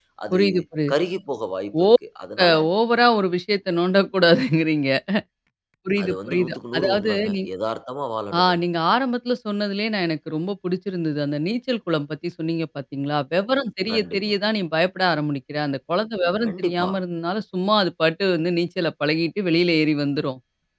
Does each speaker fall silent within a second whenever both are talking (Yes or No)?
No